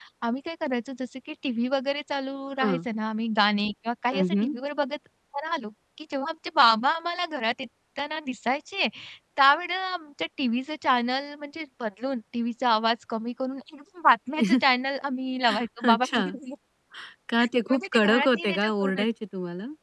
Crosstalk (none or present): present